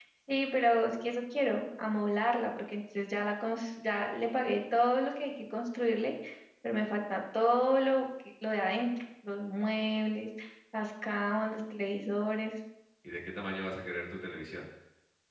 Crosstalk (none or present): none